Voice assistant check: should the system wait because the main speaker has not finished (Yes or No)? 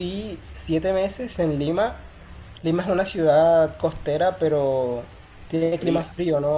Yes